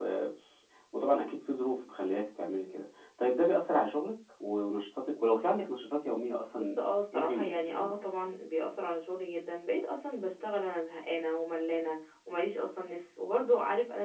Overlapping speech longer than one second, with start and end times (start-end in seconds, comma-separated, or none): 6.5-7.9